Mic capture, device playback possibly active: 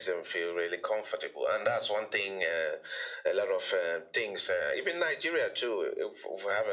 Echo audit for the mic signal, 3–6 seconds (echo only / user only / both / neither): echo only